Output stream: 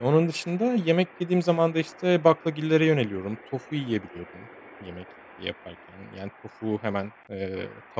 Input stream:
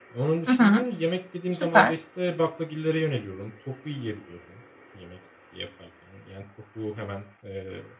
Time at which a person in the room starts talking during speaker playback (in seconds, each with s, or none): 0.5 s